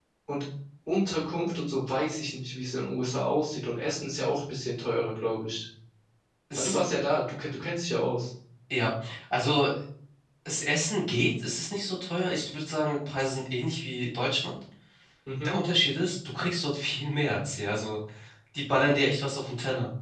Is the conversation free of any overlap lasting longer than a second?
Yes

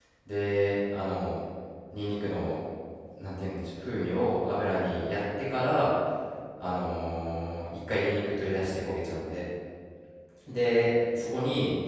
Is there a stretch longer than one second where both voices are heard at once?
No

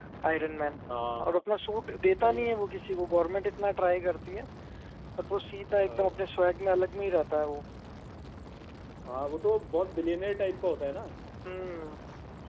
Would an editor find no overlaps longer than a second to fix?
Yes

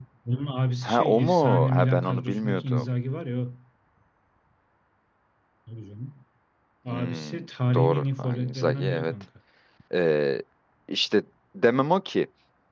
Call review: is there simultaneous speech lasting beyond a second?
Yes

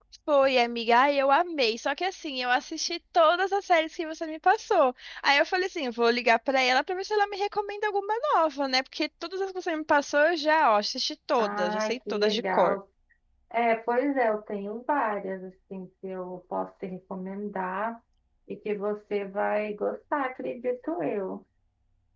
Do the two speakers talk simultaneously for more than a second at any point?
Yes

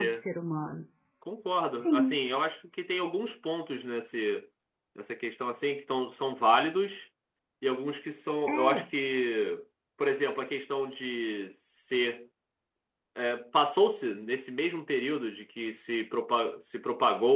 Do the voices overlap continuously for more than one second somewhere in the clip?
No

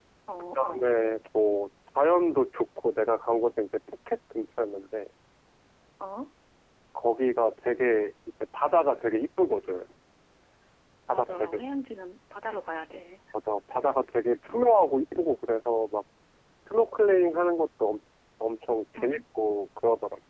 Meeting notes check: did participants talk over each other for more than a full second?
No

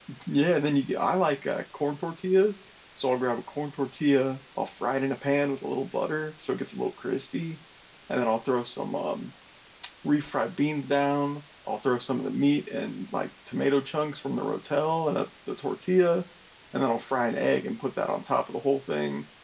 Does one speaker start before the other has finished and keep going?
No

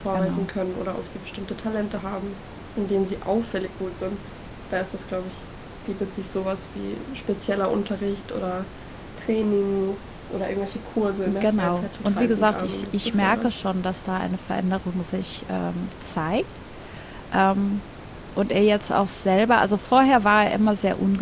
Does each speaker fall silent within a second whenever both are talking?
No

